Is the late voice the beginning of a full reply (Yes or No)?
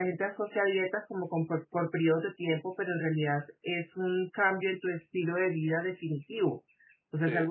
No